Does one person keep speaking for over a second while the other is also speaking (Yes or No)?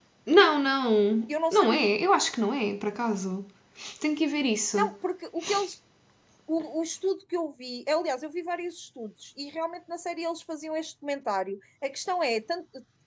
No